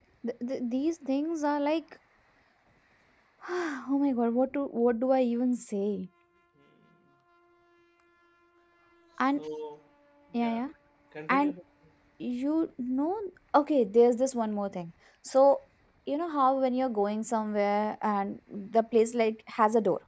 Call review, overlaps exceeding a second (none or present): none